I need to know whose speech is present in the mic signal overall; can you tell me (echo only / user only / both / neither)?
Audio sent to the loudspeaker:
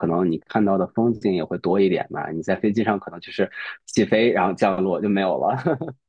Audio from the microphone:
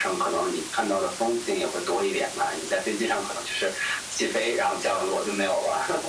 echo only